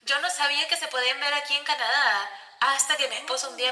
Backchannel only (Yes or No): Yes